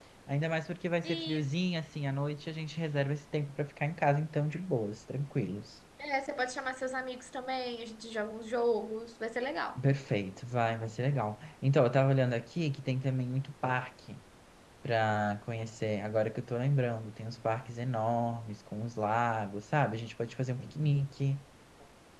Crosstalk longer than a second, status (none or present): none